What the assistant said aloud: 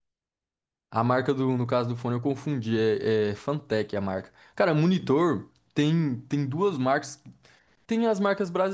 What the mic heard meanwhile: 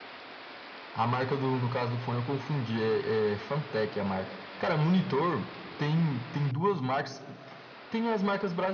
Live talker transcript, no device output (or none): none